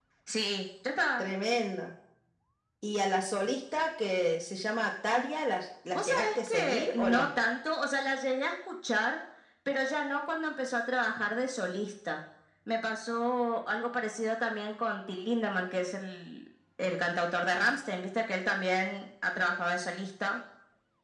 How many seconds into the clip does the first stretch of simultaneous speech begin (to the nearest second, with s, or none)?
6 s